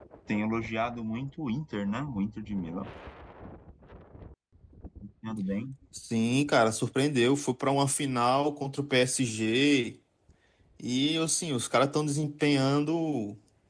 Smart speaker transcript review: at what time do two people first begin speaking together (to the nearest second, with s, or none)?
none